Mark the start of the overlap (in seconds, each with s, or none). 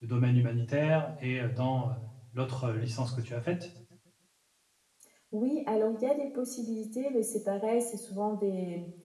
none